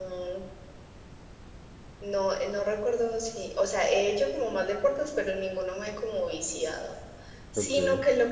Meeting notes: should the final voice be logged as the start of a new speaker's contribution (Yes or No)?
No